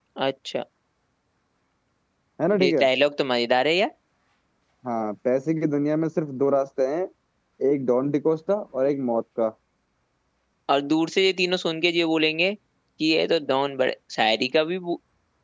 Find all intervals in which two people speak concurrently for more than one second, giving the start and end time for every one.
none

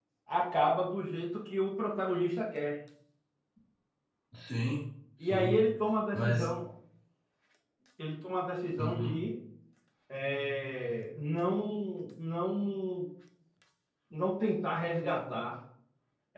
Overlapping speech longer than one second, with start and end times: none

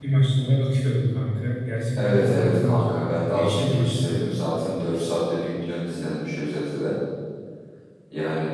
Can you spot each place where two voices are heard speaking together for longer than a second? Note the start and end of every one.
2.0-4.4

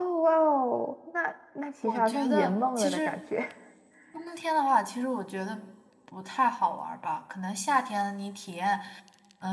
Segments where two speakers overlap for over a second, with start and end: 1.8-3.2

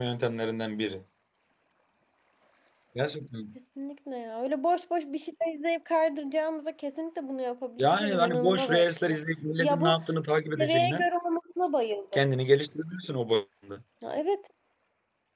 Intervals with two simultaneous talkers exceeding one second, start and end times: 7.8-9.2

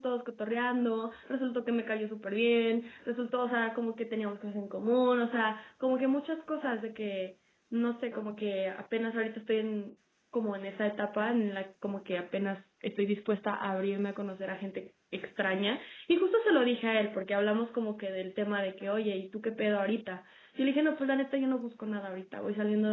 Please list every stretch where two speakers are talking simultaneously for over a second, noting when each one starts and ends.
none

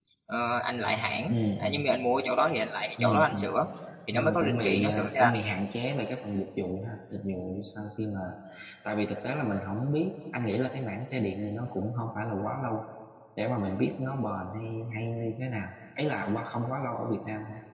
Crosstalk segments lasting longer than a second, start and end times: 4.1-5.3

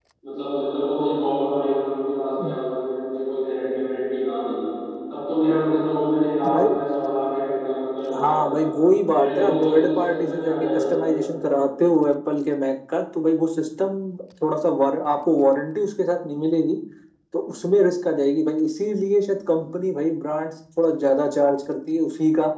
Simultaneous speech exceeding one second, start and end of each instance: 9.1-10.8

